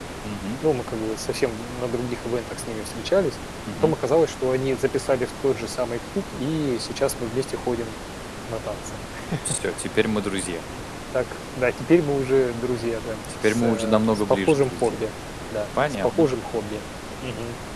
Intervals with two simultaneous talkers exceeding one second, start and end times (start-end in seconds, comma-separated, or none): 13.4-15.0